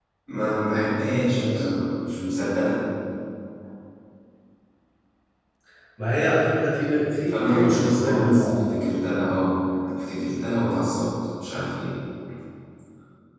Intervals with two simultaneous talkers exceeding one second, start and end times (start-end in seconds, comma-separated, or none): 7.3-8.6